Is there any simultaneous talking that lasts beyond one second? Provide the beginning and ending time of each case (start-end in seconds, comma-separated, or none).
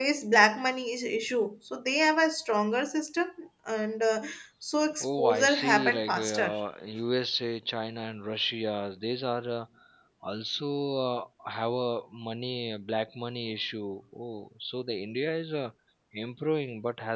5.0-6.5